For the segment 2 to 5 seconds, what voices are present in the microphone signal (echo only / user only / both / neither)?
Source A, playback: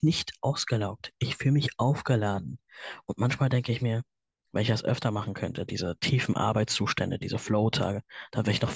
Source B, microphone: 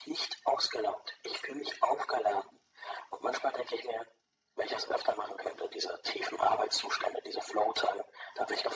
echo only